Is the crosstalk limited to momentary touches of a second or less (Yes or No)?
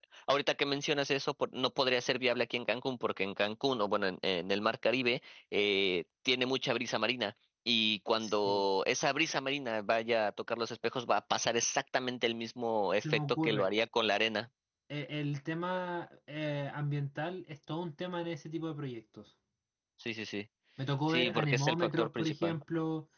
No